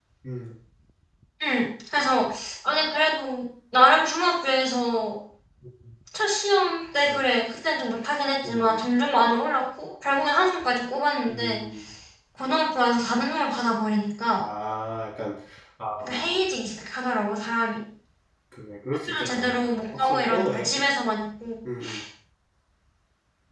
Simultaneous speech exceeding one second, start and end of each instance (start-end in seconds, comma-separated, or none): 19.1-20.7